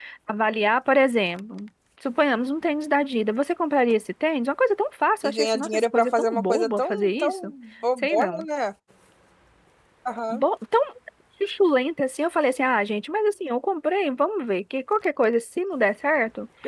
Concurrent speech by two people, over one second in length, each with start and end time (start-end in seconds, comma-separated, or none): 5.2-7.5